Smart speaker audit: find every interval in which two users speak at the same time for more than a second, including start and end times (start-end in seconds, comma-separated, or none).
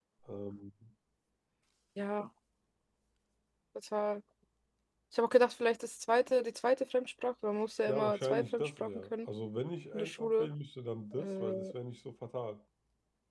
7.9-9.1